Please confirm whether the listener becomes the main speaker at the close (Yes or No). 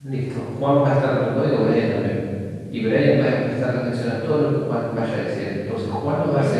No